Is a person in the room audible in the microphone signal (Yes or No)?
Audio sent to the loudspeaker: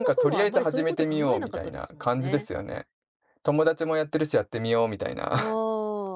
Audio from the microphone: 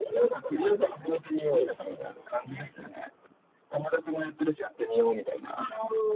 No